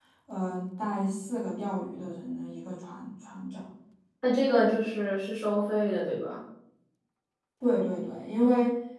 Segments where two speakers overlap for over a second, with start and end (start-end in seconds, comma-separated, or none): none